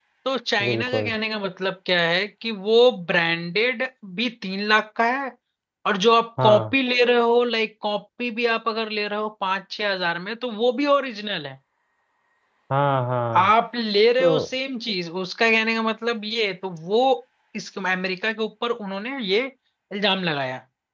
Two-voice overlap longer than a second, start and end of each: none

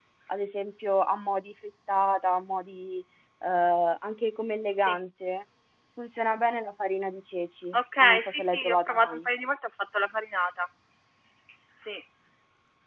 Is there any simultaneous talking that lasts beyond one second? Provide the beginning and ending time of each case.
7.7-9.3

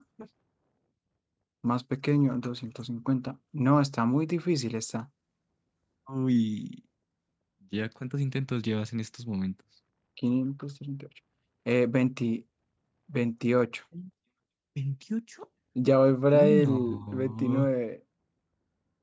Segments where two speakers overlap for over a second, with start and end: 16.3-17.6

